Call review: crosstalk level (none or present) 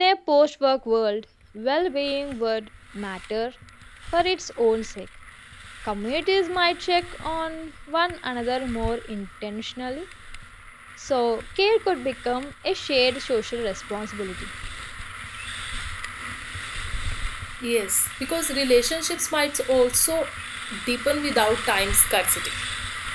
none